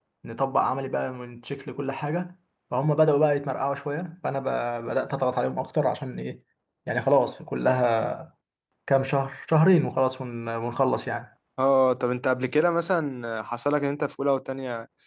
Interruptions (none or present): none